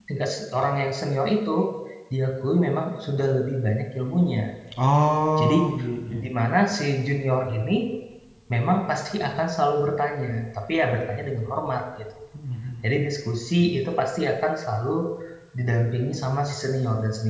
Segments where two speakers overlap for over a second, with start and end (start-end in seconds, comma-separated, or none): none